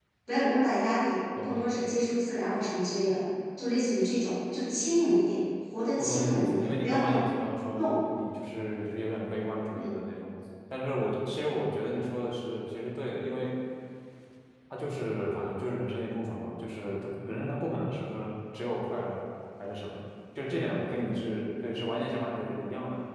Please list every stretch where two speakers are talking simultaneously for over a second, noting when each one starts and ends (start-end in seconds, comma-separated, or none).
5.9-7.2